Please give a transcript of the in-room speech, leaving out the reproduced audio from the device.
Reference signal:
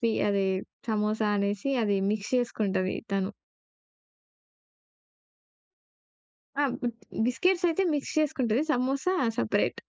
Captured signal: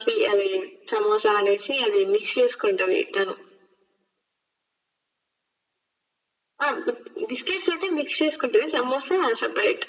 none

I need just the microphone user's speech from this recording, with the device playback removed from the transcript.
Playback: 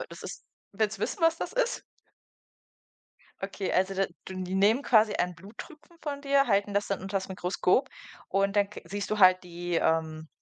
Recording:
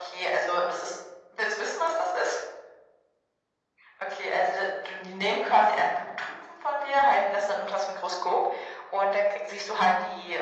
none

